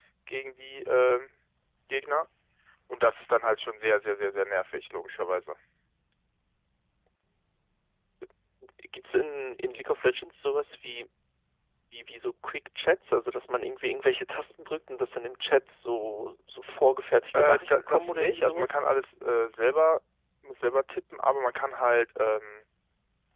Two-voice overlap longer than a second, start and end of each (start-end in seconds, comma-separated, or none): 17.3-18.7